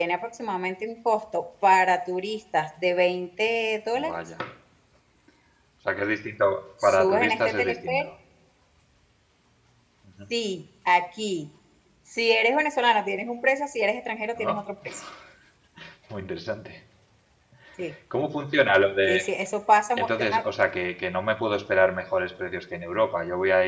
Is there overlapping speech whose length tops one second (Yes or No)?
Yes